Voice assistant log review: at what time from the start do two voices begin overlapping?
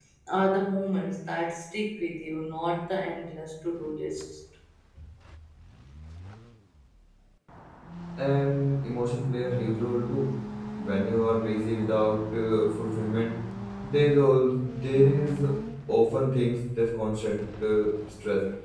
none

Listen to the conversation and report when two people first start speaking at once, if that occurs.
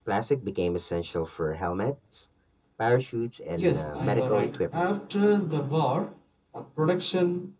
3.6 s

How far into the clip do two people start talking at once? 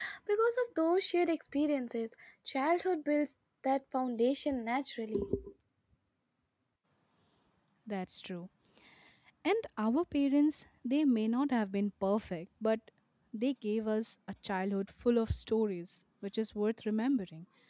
none

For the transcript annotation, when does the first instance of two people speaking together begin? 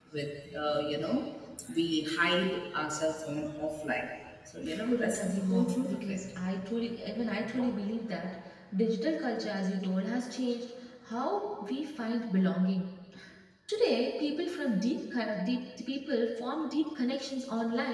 4.9 s

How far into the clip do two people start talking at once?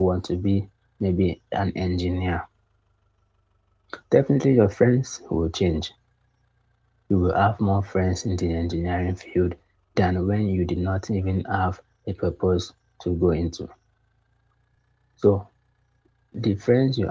none

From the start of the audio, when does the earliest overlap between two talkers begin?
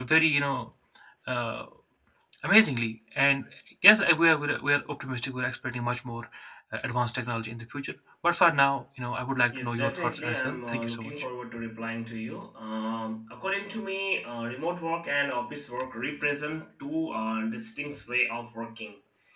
9.5 s

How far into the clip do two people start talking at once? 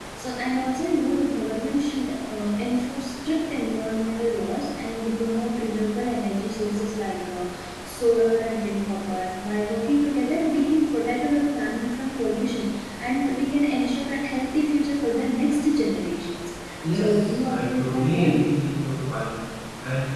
16.9 s

